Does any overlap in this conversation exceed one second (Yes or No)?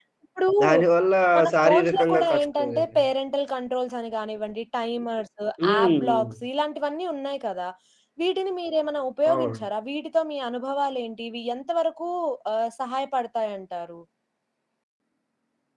Yes